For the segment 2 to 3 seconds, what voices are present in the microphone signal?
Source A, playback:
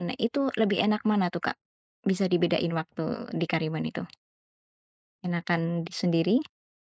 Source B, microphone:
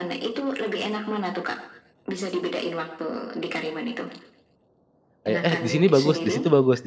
echo only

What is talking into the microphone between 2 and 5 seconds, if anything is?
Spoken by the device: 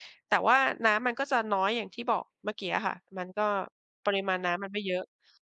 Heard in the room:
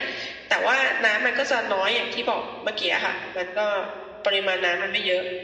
echo only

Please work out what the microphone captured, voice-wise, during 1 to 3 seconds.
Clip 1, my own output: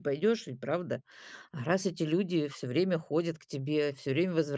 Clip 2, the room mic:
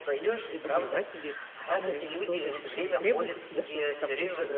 both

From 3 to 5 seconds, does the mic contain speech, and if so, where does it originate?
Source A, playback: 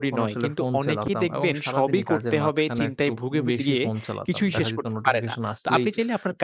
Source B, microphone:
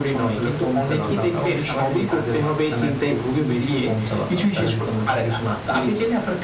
echo only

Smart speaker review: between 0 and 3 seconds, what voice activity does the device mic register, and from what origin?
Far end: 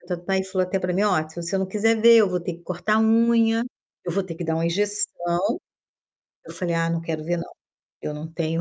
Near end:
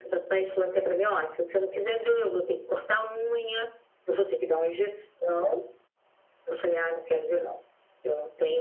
echo only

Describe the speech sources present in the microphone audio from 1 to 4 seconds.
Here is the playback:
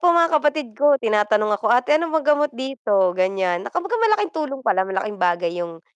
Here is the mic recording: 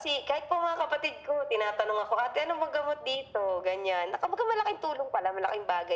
echo only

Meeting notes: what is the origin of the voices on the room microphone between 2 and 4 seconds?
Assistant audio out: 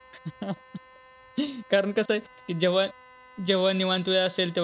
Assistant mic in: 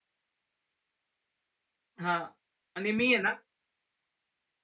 user only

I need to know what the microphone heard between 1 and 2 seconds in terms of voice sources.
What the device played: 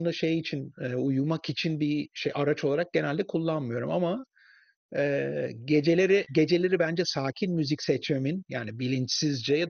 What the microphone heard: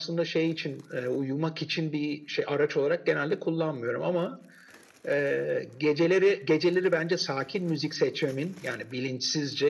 echo only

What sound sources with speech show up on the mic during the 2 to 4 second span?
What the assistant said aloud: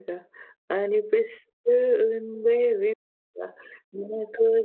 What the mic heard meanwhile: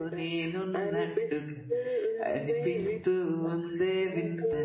both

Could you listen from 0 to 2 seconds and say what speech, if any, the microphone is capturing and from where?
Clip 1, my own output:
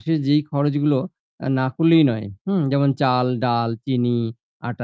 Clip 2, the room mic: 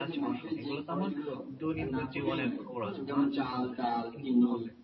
both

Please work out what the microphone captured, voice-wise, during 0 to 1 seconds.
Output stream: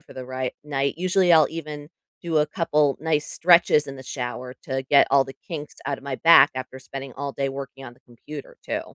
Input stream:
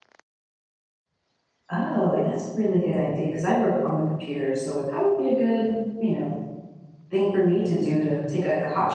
neither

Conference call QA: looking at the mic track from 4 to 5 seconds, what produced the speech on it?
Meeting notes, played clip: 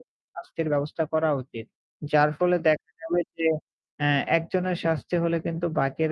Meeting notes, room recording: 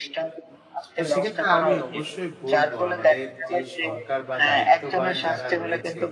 both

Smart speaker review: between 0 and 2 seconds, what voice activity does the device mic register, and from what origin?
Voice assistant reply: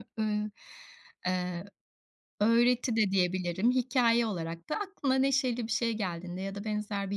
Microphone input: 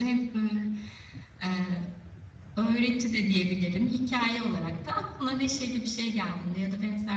echo only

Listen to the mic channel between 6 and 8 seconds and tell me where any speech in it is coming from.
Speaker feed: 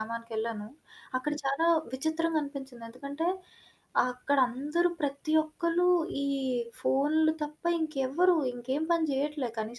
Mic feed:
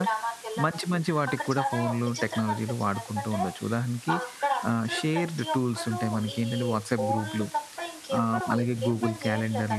both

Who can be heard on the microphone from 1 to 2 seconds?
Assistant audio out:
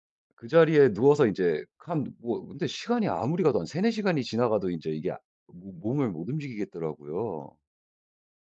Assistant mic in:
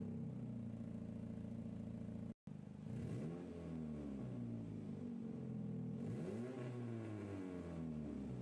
neither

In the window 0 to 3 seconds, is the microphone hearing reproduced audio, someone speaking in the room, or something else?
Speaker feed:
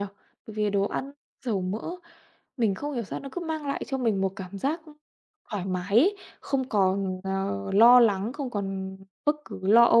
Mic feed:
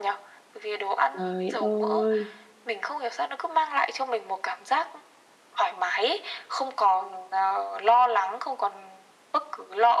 both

